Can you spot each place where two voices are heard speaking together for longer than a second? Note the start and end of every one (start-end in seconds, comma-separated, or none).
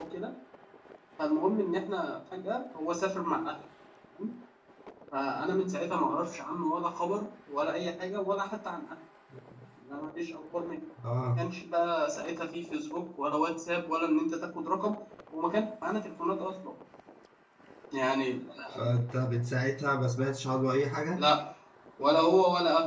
none